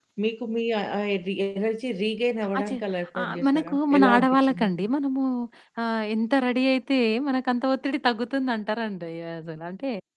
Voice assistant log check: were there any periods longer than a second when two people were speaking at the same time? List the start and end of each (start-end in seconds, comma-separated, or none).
3.2-4.7